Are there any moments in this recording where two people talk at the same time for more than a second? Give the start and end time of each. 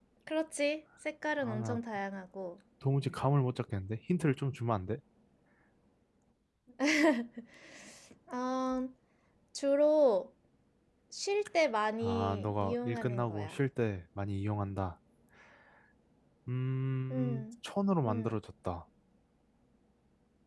12.0-13.5

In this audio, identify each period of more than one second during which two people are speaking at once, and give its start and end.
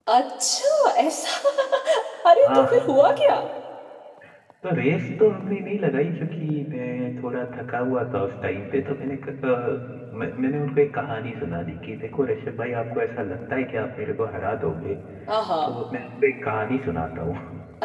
none

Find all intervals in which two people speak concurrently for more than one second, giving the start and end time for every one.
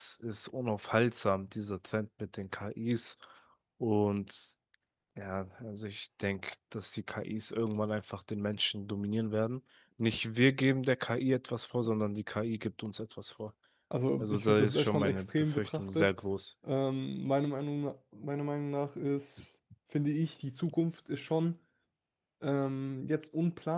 14.2-16.1

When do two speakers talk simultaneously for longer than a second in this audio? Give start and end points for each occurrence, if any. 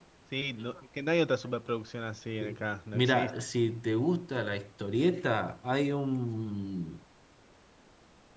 none

